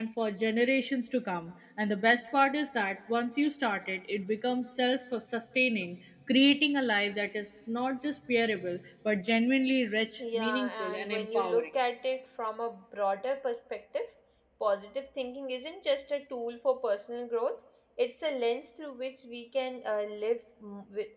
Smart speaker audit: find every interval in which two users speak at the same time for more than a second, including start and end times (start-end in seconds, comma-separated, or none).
10.2-11.7